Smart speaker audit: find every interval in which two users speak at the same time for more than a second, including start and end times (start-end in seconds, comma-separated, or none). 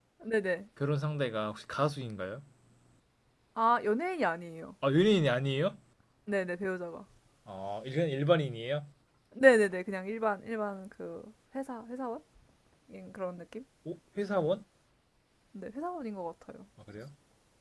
none